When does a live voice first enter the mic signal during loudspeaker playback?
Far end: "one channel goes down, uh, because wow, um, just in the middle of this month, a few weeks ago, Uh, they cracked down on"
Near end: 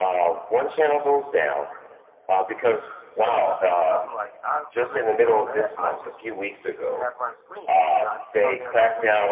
3.1 s

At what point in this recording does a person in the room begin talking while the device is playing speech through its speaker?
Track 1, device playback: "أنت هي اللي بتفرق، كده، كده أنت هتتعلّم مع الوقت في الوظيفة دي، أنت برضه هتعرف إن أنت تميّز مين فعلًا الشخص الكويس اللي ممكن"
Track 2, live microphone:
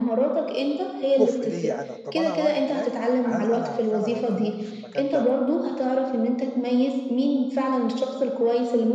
1.2 s

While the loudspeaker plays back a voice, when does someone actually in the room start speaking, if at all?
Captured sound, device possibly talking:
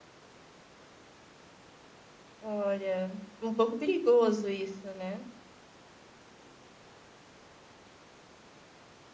2.4 s

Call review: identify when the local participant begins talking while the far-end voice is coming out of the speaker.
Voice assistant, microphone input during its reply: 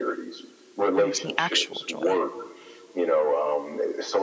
0.9 s

